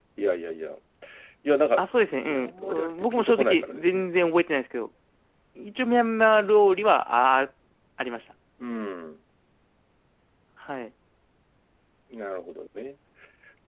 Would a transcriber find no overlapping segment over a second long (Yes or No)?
No